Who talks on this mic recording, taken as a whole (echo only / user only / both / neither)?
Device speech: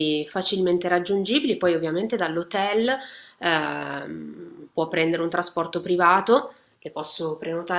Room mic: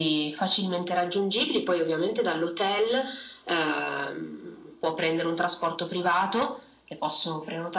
echo only